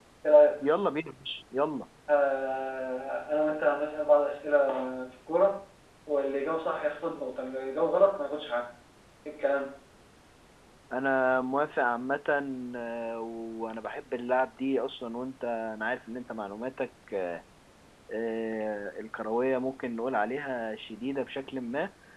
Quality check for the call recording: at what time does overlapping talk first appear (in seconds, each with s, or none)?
none